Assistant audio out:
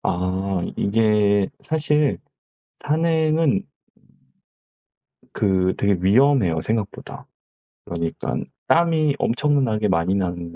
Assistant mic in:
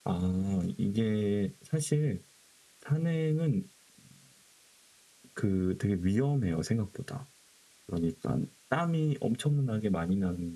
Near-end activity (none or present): none